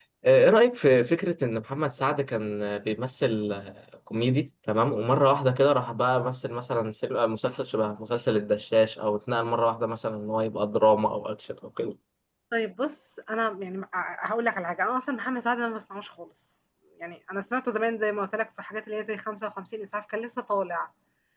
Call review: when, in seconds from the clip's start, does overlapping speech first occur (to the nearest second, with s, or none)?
none